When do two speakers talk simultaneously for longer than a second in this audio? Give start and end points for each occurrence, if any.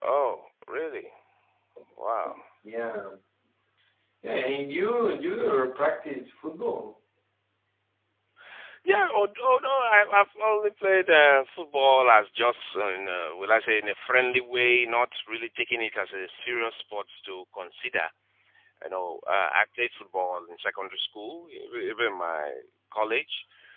none

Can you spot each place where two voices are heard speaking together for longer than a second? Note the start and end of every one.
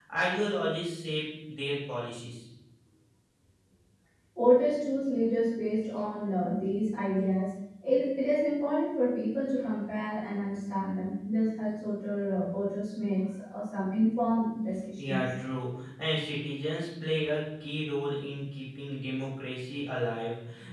none

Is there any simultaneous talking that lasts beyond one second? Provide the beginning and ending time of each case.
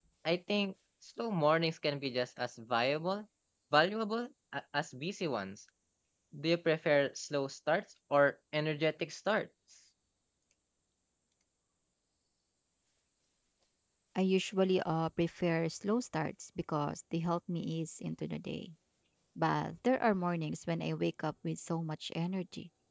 none

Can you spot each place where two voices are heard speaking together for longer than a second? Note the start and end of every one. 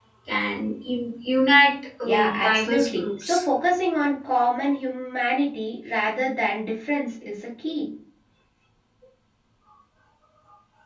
2.0-3.4

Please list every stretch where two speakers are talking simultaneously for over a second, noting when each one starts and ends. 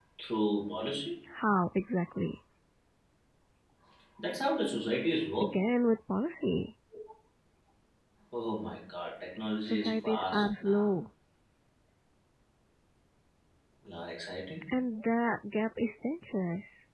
9.7-10.9

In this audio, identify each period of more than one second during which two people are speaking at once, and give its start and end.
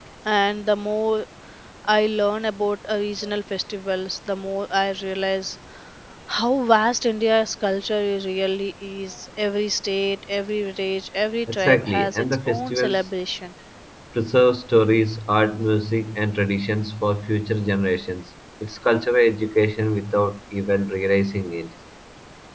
11.5-13.0

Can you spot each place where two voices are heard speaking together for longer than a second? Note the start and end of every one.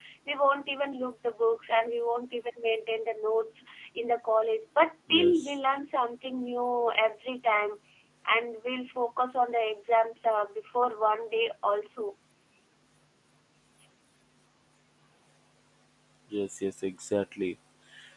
none

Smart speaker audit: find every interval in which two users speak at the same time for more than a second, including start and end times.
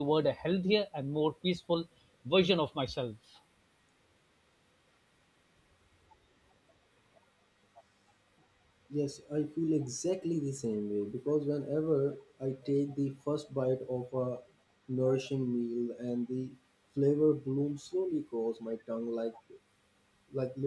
none

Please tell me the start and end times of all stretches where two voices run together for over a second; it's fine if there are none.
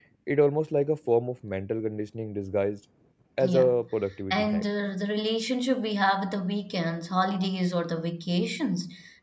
none

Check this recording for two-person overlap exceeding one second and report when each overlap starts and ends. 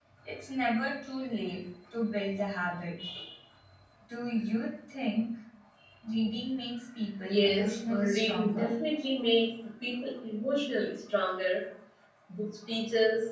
7.2-8.7

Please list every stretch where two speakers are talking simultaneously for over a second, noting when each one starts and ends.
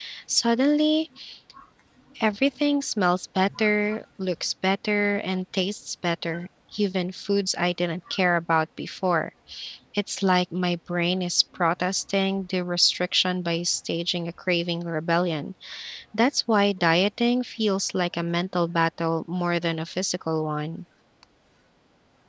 none

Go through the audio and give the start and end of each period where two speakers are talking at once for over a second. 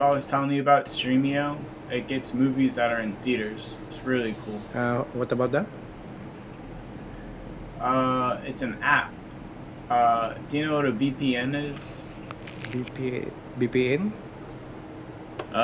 none

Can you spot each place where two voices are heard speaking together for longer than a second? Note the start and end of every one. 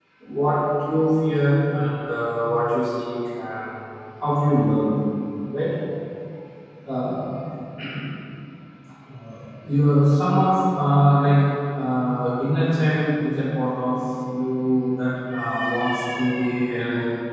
none

